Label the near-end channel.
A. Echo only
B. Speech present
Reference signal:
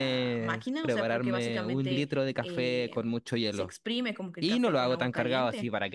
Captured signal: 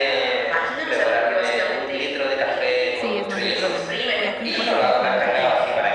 B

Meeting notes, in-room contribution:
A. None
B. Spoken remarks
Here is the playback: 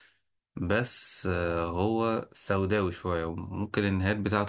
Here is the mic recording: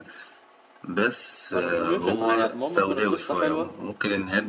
B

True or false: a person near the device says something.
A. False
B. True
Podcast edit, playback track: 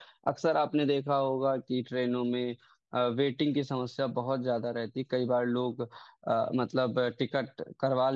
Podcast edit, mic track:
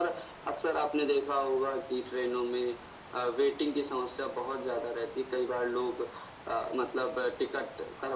A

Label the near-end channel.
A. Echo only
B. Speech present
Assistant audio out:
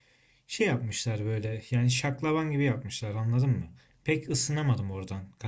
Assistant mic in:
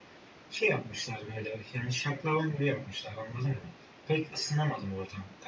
A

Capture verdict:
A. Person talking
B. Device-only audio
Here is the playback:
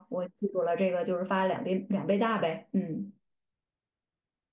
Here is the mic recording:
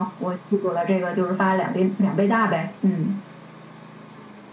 B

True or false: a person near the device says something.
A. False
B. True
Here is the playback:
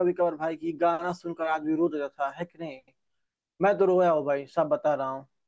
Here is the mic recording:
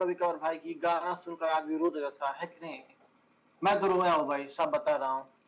A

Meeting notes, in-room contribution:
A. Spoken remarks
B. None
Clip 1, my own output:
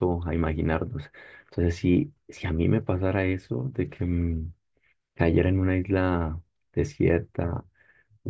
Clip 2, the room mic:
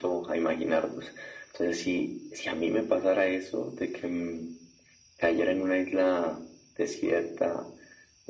B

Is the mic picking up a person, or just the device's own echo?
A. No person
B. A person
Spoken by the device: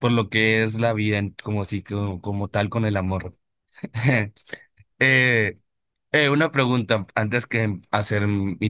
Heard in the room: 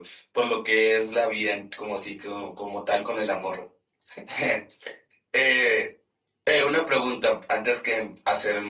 A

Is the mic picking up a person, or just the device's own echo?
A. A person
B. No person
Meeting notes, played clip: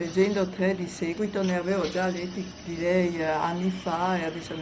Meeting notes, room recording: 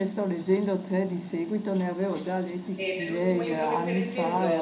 A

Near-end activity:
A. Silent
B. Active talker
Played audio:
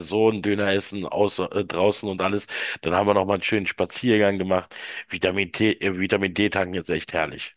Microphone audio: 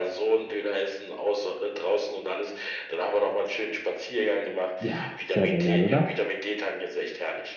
B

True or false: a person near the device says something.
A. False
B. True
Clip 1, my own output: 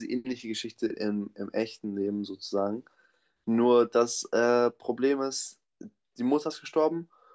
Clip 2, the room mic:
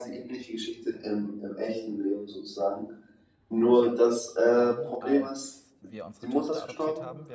B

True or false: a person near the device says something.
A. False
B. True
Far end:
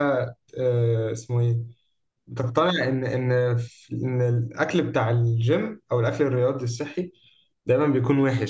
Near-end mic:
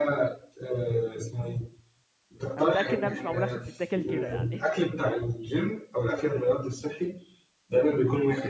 B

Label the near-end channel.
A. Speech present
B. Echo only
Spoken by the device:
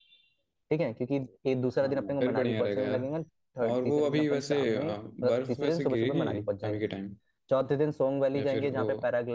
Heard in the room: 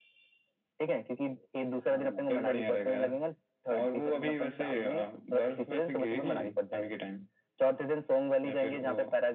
B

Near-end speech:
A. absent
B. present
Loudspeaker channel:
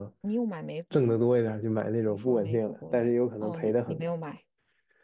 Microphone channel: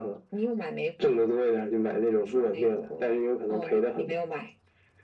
A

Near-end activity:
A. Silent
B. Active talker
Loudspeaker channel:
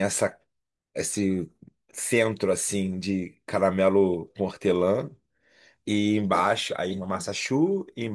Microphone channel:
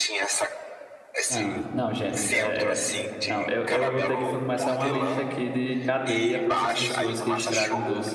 B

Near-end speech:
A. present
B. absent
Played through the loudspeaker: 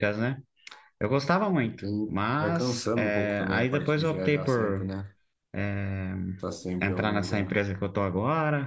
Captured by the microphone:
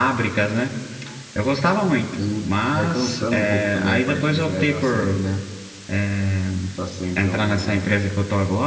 B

